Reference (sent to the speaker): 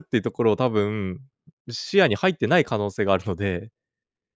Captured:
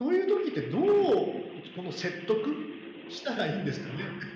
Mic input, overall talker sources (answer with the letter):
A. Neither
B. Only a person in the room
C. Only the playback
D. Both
B